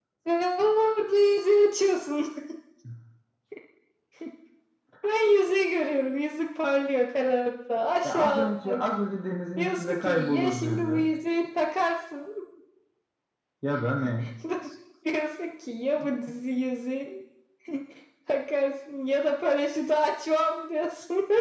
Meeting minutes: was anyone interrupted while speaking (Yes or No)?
Yes